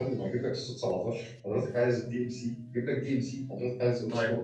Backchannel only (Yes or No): No